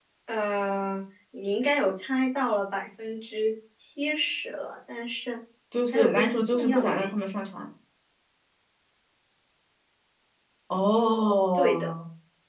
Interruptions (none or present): present